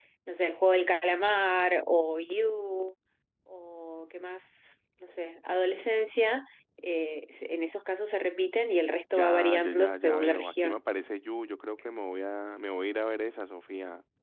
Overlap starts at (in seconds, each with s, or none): 9.1 s